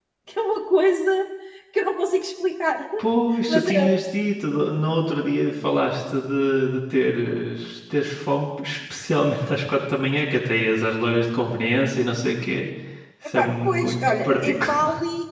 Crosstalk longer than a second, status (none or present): present